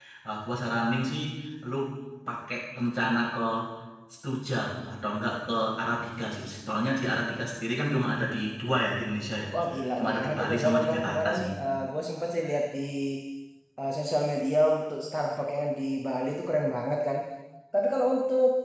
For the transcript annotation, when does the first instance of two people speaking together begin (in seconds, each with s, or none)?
10.0 s